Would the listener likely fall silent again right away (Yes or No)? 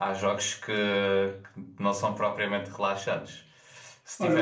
No